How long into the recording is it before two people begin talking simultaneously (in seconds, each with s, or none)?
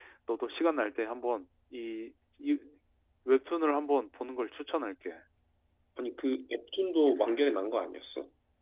none